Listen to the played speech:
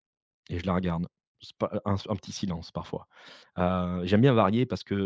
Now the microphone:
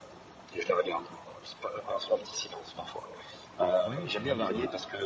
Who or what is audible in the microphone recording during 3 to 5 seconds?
both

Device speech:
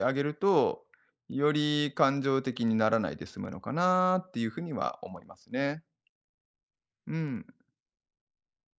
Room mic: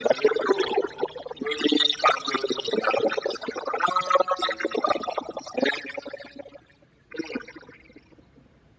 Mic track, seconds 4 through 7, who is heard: echo only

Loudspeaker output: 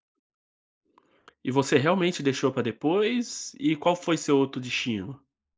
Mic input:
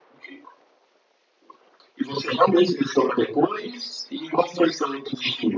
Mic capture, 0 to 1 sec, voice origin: neither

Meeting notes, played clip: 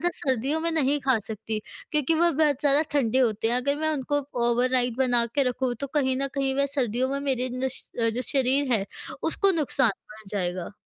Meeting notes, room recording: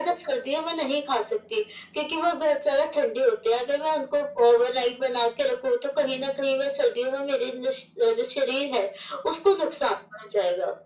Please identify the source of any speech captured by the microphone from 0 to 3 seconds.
echo only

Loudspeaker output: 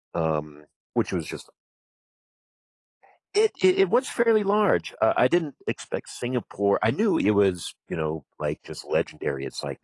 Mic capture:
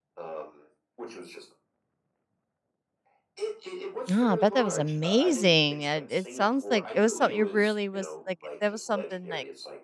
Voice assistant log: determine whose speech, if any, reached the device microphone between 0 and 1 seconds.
echo only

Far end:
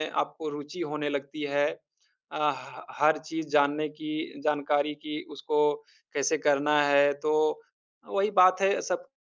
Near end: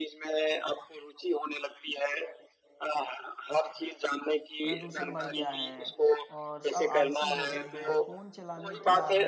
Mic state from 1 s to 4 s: echo only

